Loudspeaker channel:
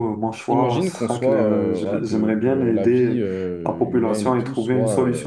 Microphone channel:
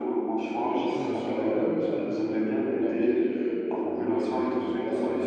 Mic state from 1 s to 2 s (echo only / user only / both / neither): both